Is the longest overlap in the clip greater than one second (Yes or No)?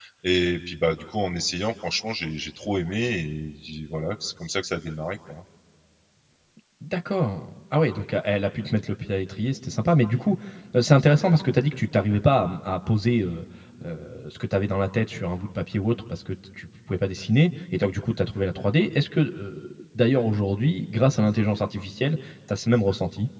No